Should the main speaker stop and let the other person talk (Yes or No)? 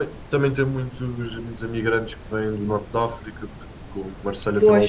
No